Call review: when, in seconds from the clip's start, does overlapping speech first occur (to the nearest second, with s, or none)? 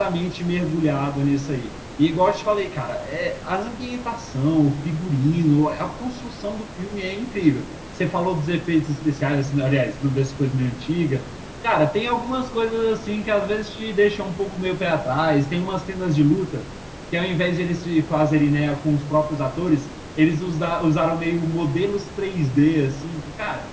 none